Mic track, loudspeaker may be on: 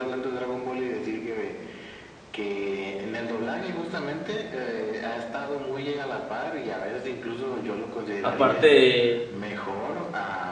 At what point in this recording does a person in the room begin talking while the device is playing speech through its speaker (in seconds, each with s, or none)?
8.2 s